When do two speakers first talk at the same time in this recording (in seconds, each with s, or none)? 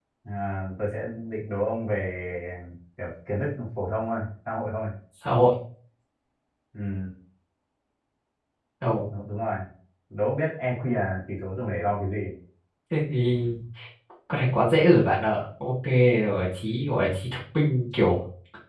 none